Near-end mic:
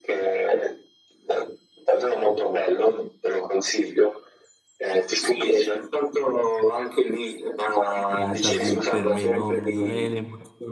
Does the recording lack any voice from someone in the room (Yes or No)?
No